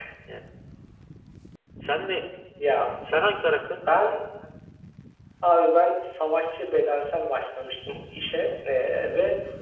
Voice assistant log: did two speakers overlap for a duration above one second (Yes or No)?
No